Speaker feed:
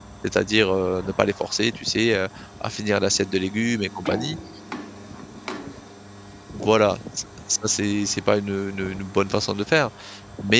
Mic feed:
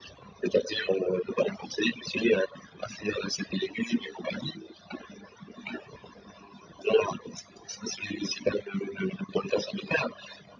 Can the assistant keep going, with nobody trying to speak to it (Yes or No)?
Yes